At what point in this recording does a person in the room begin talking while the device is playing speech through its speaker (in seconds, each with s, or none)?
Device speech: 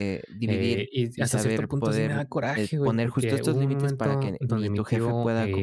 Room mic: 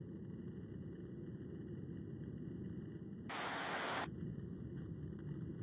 none